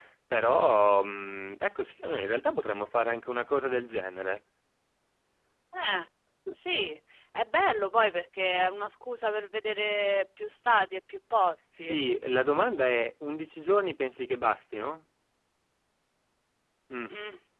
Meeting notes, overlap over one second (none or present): none